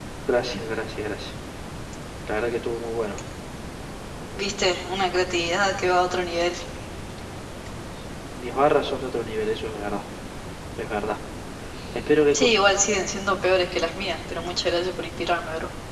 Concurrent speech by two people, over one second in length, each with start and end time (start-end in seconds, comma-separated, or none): none